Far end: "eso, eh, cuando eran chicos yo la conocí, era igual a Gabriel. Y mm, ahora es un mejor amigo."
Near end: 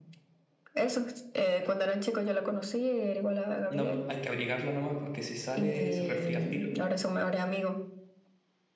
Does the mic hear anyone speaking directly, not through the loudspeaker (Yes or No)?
Yes